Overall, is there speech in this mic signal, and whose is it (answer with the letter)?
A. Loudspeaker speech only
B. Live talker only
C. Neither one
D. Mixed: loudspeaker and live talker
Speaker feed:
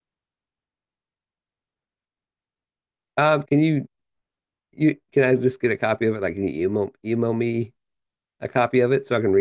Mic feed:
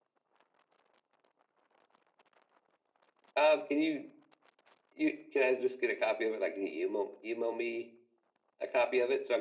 A